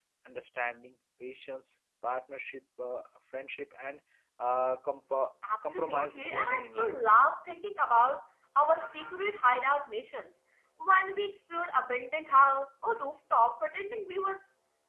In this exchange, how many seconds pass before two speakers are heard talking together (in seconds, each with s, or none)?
5.7 s